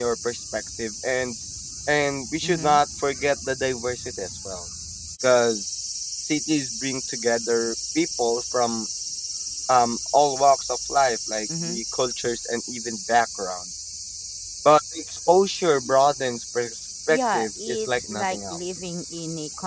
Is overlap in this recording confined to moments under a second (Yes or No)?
No